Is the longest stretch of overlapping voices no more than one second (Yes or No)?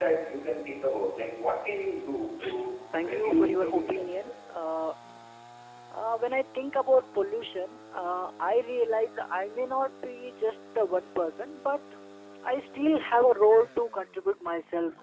No